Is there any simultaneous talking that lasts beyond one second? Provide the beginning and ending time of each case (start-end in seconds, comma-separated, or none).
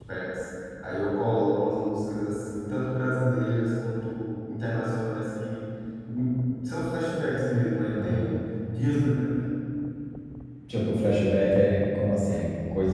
none